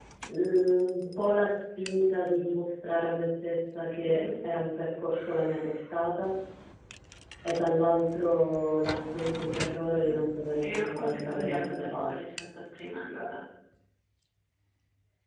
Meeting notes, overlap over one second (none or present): present